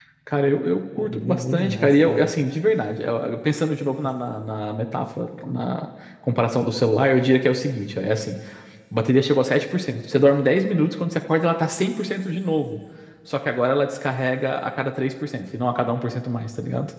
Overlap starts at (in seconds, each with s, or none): 1.0 s